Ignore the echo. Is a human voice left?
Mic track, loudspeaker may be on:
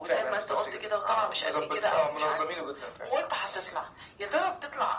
No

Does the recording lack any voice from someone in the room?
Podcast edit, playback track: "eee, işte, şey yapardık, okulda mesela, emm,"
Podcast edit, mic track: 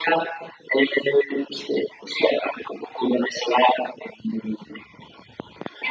Yes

